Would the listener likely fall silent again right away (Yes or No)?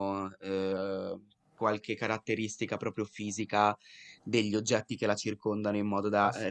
Yes